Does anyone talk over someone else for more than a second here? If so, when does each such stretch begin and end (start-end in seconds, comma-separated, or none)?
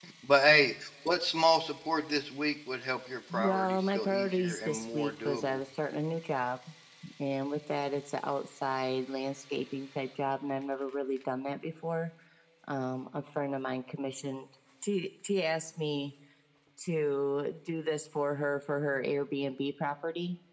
3.3-5.6